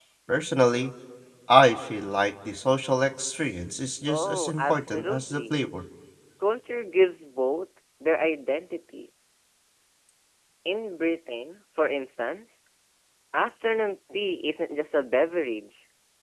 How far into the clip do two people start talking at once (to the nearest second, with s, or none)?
4 s